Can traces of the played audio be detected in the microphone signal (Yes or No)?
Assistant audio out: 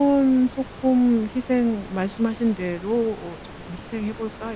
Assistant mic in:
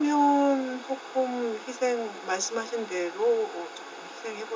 Yes